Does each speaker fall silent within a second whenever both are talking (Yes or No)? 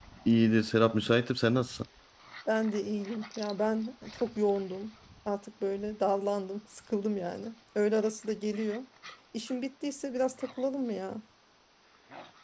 Yes